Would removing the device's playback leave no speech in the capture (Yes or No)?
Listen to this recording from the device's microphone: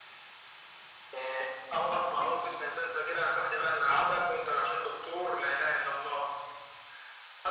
Yes